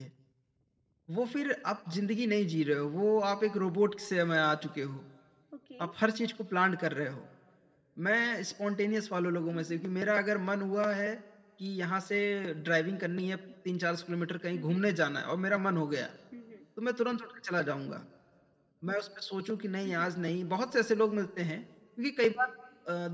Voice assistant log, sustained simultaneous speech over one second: none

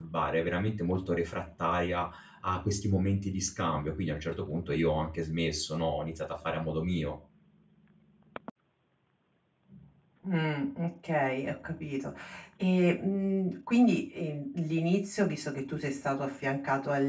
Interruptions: none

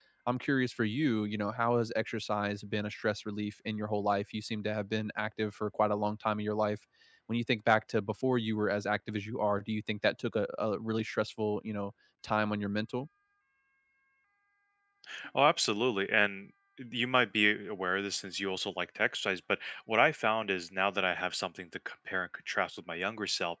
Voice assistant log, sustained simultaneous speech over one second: none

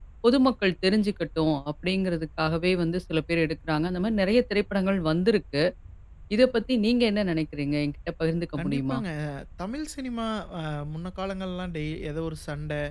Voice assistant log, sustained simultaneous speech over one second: none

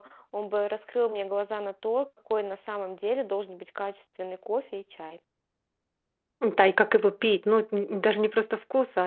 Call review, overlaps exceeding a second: none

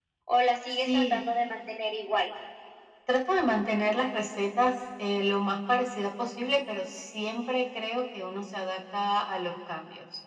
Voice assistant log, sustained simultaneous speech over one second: none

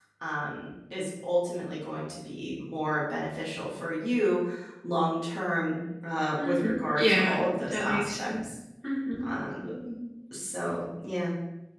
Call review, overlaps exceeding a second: present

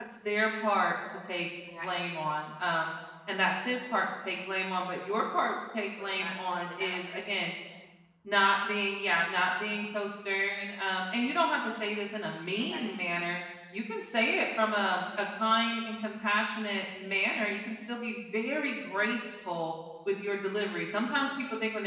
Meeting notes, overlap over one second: present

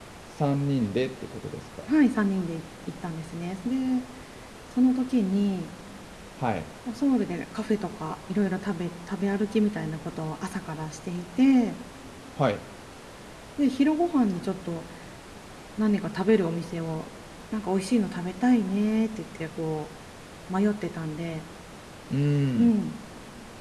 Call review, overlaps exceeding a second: none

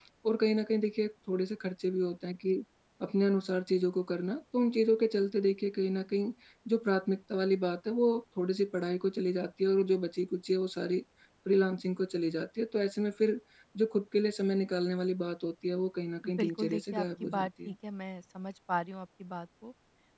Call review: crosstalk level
present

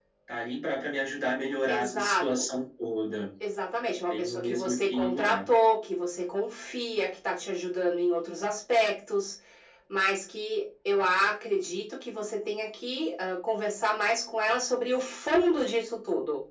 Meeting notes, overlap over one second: present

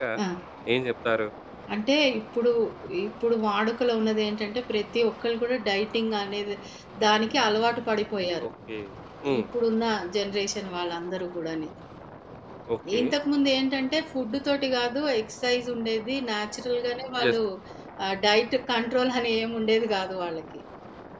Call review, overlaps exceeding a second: none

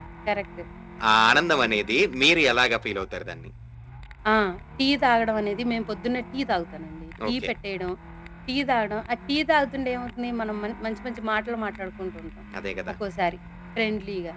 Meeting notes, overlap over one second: none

